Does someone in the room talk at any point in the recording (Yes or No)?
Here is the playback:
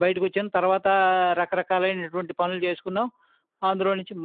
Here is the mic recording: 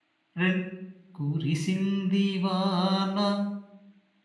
Yes